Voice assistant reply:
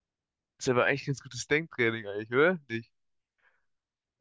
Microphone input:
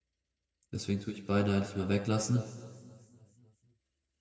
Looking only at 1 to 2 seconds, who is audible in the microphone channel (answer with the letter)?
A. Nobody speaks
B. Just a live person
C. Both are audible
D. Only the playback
B